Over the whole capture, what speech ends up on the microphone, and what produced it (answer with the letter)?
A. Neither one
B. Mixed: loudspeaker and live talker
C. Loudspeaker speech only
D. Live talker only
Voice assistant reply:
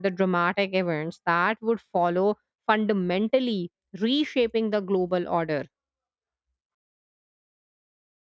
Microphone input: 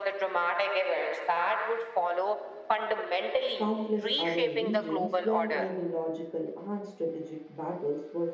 B